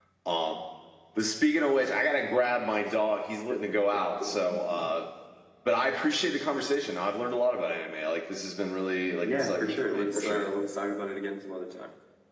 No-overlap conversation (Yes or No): No